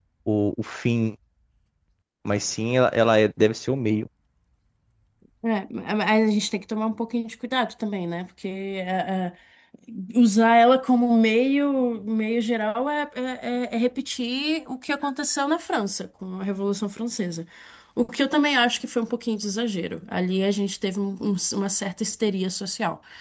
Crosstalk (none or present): none